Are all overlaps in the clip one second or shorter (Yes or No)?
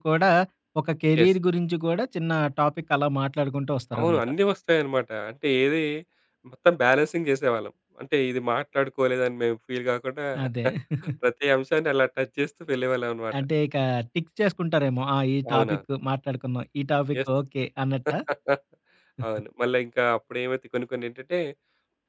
Yes